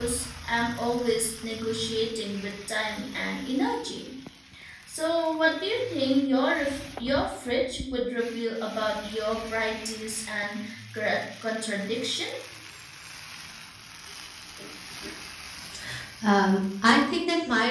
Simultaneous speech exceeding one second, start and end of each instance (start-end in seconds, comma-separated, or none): none